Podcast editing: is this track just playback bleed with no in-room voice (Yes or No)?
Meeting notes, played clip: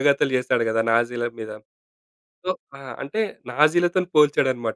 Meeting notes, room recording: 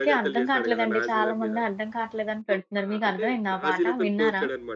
No